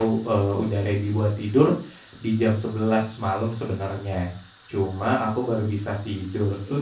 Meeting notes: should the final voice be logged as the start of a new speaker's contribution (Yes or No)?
No